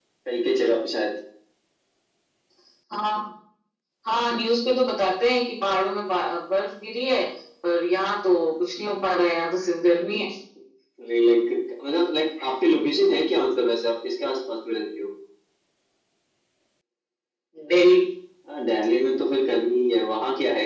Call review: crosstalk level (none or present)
none